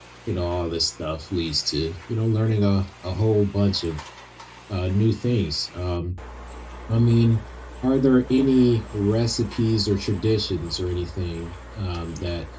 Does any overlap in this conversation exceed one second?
No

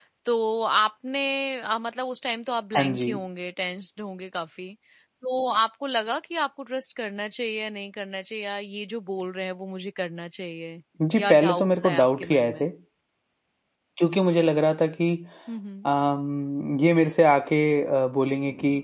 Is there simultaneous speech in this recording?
Yes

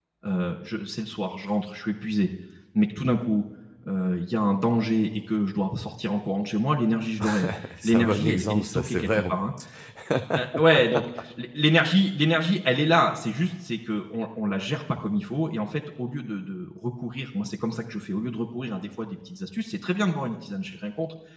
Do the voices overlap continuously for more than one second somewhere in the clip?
Yes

